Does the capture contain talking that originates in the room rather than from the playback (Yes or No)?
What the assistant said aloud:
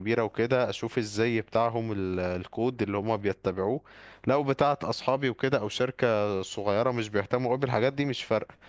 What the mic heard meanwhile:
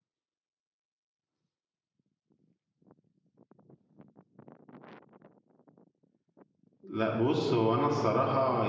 Yes